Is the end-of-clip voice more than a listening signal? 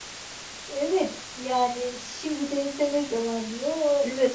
Yes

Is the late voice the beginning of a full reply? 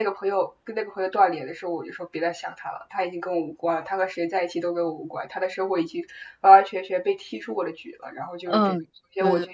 Yes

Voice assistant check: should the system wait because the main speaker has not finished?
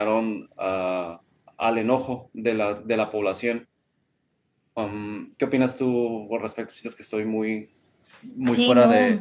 No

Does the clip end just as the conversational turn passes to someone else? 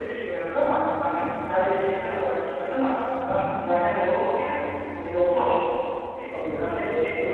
Yes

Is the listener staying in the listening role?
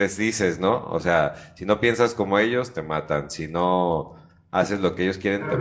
No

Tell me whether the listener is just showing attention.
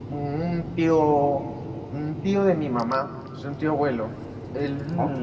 Yes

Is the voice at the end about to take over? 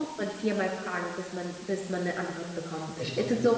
No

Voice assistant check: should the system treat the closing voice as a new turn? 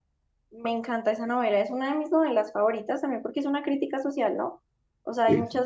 No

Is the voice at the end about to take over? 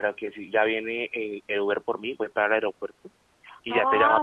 Yes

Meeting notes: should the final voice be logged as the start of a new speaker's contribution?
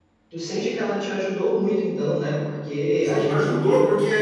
Yes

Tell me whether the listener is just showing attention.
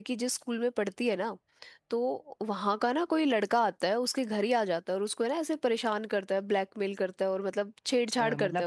No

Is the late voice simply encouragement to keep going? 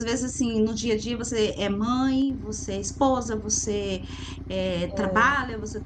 Yes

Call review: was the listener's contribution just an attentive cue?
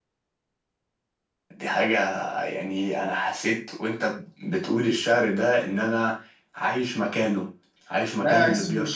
No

